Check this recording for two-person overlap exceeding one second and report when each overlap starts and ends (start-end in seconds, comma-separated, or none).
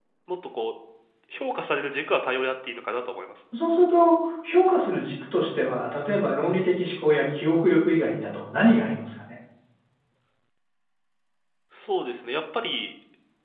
none